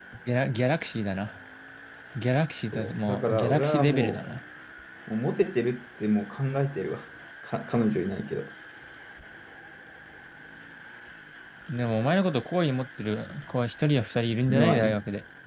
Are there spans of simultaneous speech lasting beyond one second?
Yes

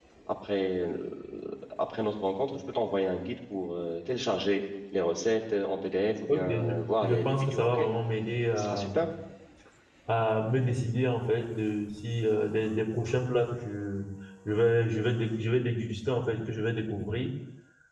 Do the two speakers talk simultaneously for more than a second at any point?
Yes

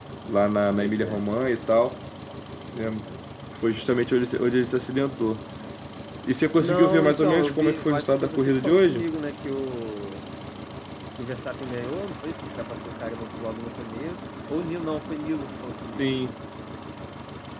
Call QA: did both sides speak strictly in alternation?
No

